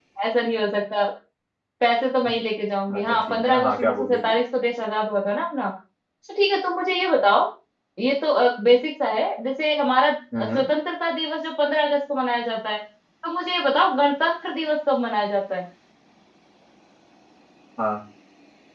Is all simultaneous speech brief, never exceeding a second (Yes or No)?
No